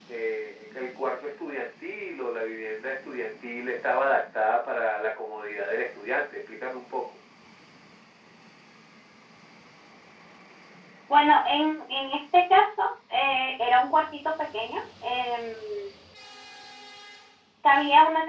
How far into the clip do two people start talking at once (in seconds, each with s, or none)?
none